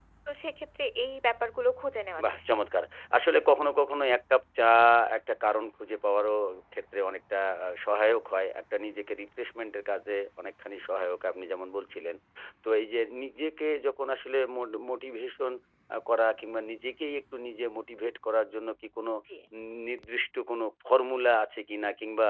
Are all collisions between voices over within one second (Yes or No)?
Yes